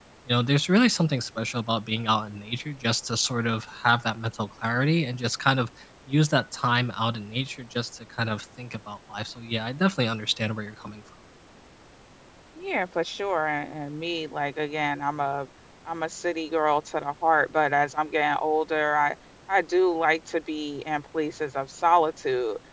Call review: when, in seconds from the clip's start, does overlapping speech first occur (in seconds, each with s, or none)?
none